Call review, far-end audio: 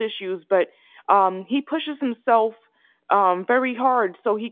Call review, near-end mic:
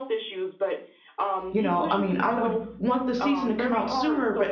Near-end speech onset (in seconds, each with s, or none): 1.5 s